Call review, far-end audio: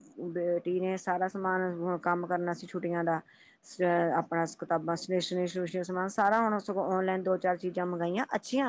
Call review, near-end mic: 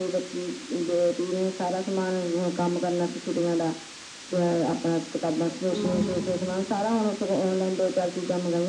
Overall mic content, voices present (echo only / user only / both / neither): both